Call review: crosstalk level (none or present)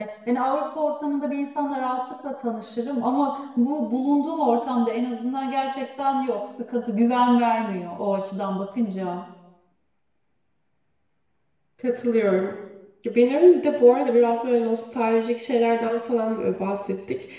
none